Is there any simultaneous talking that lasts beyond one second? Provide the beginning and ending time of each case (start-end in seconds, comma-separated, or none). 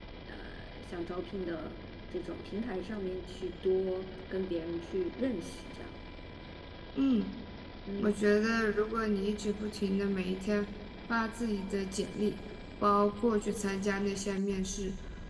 none